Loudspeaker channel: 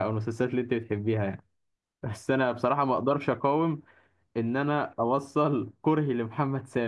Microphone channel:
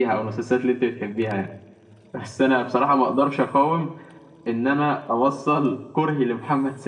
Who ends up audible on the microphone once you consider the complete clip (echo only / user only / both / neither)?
echo only